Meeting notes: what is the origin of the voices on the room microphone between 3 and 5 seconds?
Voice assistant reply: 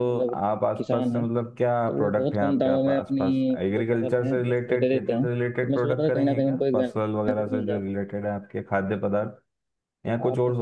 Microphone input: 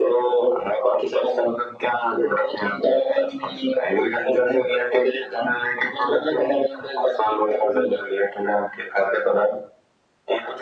echo only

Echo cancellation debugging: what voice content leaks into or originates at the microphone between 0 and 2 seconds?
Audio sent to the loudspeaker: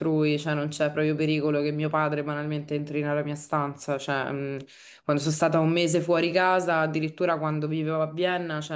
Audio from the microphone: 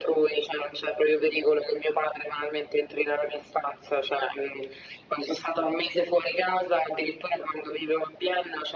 echo only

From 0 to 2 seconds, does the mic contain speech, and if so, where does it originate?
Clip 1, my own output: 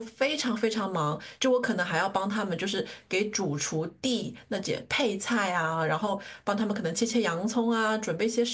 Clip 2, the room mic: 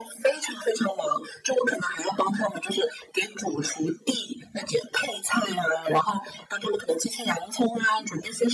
echo only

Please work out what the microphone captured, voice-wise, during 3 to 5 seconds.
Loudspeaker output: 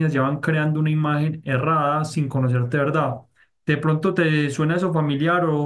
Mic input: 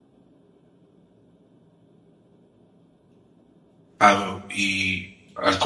user only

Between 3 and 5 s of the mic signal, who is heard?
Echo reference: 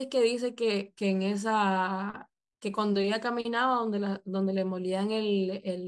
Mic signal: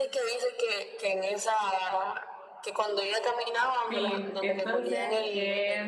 both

